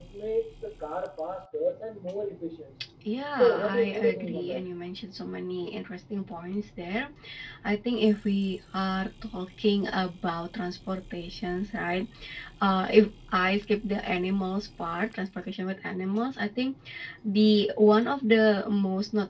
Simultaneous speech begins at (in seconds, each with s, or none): 3.4 s